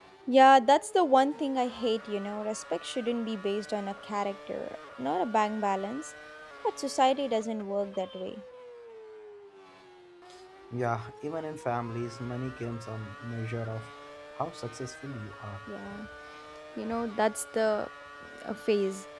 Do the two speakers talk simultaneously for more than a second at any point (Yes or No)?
No